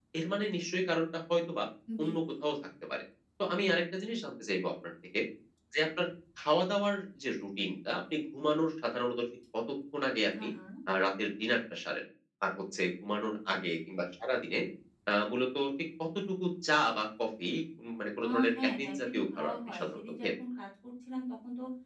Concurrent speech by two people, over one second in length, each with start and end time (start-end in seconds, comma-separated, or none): 18.2-20.3